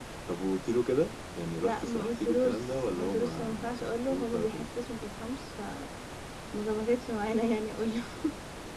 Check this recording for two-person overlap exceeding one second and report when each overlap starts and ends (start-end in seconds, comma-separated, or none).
1.6-4.7